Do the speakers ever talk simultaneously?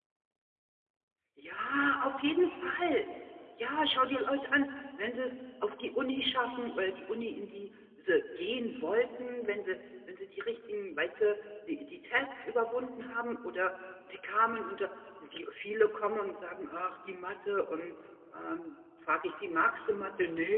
No

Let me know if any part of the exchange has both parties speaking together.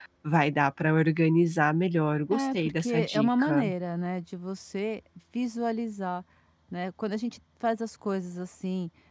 Yes, from 2.3 s

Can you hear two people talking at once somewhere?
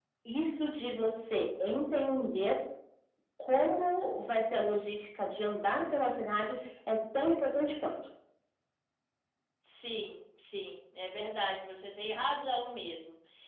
No

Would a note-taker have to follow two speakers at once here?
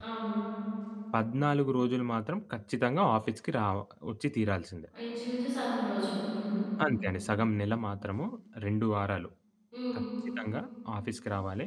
No

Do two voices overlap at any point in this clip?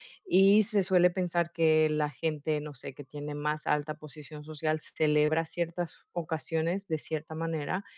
No

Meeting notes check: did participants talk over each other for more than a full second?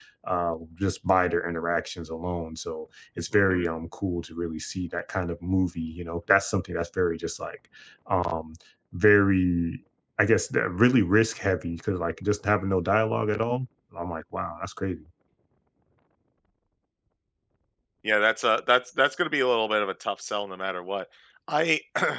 No

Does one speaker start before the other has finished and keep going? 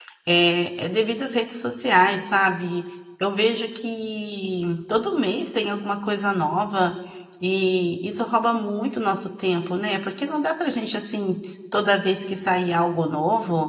No

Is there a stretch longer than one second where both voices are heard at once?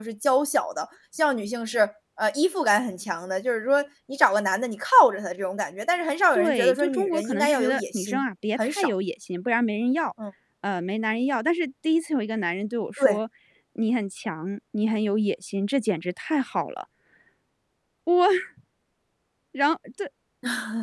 Yes, from 6.3 s

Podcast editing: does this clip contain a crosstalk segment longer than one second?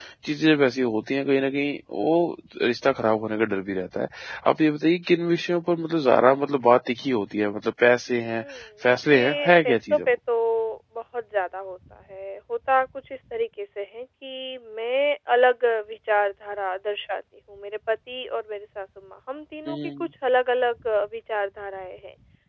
Yes, from 8.8 s

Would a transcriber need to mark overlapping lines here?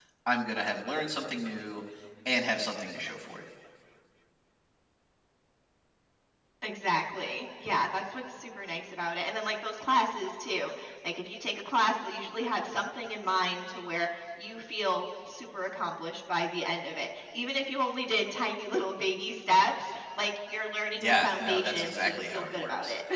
Yes, from 21.0 s

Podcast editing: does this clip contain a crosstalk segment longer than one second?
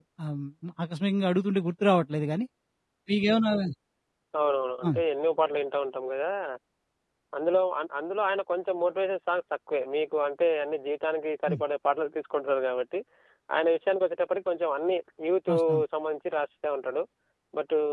No

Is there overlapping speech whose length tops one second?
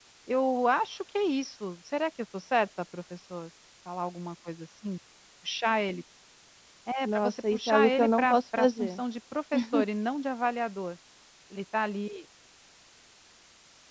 Yes, from 7.0 s

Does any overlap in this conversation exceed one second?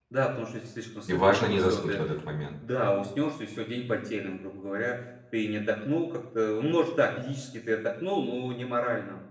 Yes, from 1.1 s

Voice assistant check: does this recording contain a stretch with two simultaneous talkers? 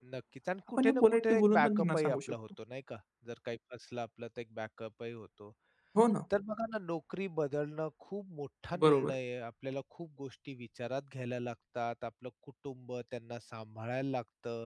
Yes, from 0.8 s

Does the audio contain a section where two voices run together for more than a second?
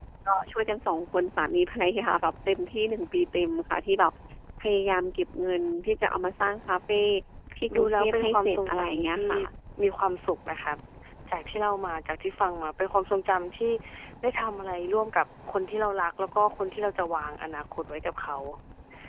Yes, from 7.8 s

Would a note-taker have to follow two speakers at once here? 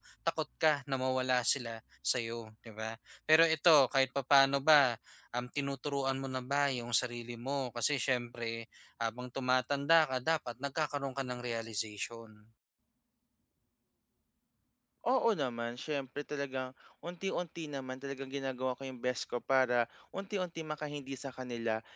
No

